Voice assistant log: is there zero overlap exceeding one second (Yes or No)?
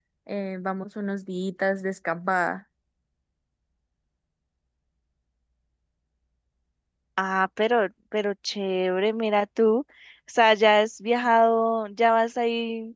Yes